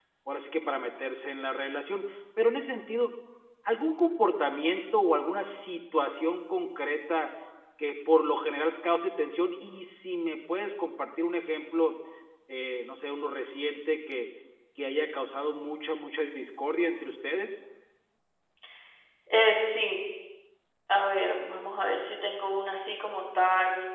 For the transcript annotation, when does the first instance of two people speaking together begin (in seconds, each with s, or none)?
none